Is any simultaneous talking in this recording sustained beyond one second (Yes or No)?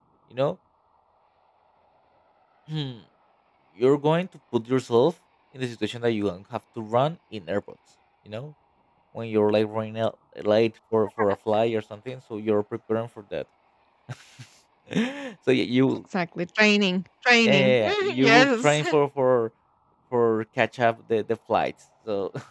Yes